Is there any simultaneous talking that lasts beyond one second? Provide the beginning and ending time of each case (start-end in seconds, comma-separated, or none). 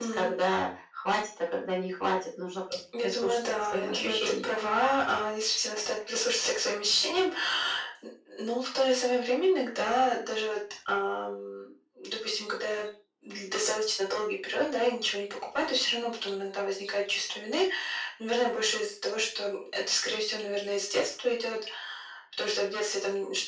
3.0-4.5